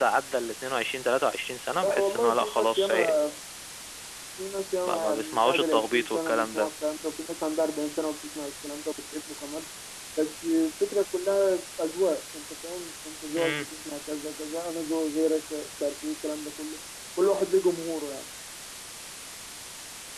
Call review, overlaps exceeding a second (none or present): present